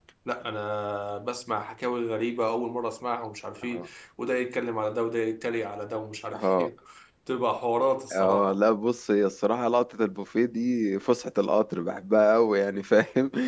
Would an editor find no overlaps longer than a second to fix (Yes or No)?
Yes